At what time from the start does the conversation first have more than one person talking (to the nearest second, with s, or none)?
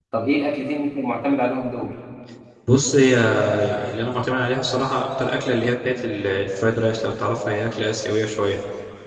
none